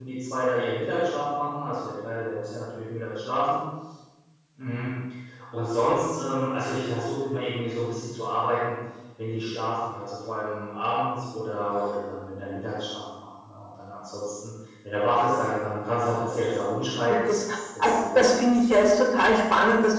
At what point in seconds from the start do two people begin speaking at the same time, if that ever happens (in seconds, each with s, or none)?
17.3 s